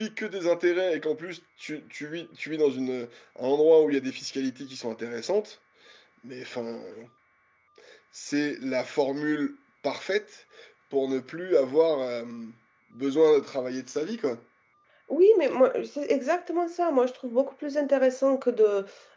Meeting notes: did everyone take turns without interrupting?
Yes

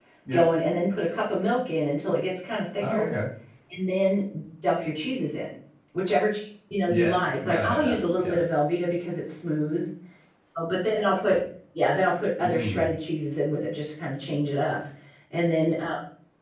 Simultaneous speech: Yes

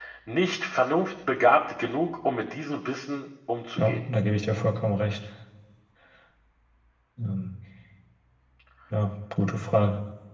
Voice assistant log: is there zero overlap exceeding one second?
Yes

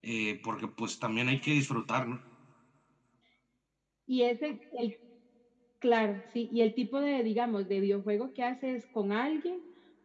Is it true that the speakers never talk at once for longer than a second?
Yes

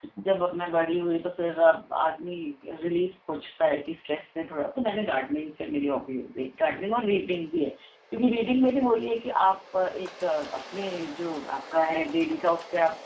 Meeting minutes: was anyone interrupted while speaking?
No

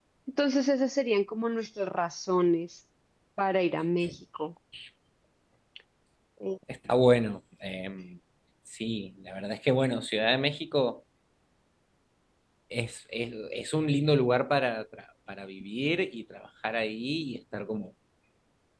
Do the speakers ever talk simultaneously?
No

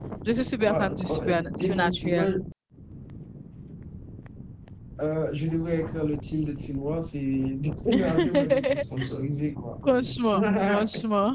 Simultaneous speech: Yes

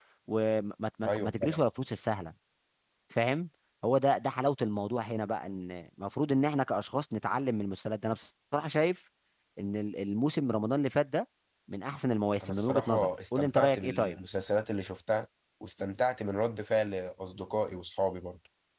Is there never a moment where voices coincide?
No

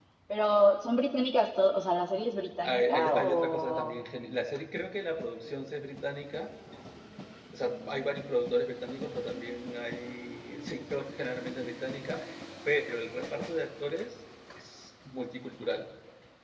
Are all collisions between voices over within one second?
No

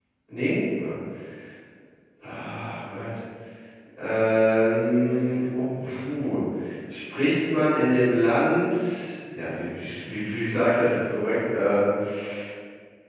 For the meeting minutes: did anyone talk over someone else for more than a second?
No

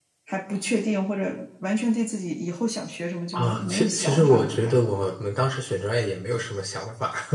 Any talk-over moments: Yes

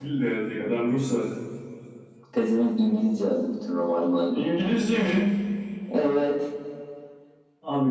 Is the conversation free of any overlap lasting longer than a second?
Yes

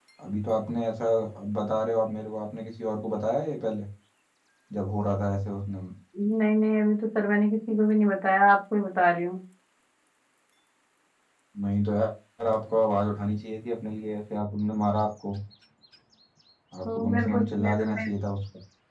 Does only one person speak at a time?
No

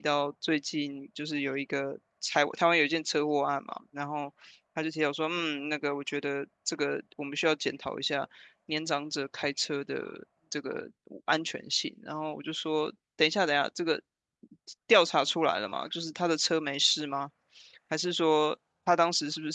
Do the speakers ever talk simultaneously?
No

